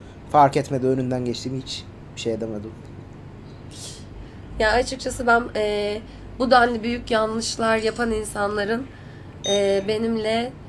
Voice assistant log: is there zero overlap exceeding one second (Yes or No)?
Yes